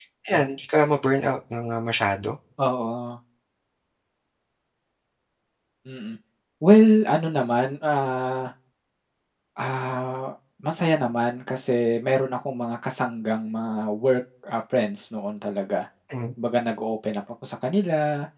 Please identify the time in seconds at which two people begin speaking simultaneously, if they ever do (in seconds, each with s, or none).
none